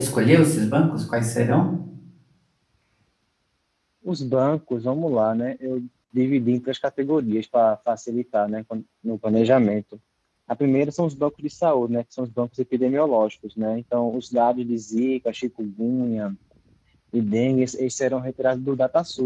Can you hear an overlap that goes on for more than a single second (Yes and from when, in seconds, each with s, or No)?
No